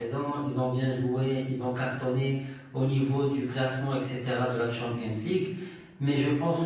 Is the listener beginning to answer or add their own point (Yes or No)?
No